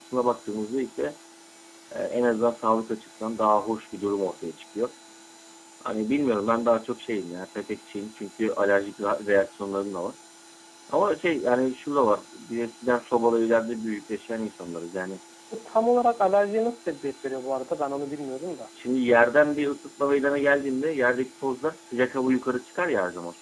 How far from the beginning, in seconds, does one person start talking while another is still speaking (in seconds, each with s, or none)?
none